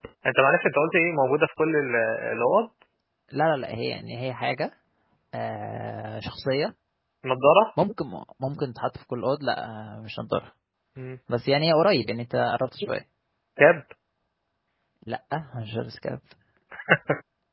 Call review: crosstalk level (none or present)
none